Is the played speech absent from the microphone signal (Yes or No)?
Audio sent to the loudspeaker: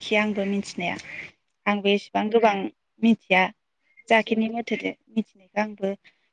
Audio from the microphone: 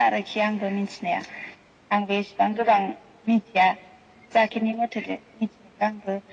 No